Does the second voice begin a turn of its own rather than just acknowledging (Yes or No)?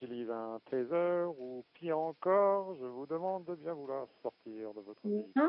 Yes